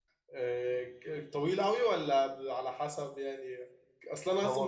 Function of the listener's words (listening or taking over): listening